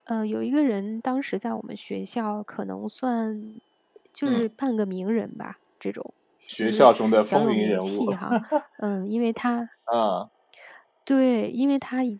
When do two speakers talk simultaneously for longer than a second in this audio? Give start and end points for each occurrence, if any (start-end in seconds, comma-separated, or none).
6.6-8.1